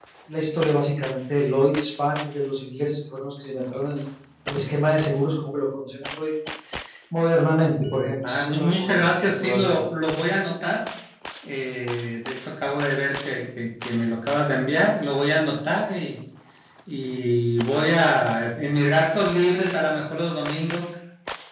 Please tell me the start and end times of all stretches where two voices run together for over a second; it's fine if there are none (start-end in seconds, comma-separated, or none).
8.2-9.7